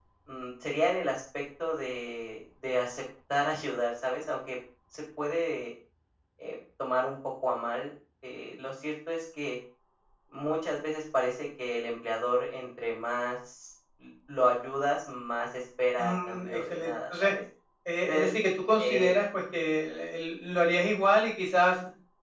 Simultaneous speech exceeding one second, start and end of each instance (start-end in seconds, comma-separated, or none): 16.0-17.3